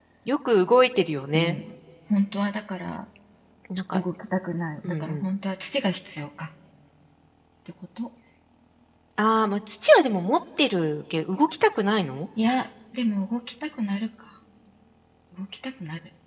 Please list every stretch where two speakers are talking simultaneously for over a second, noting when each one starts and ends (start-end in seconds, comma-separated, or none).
none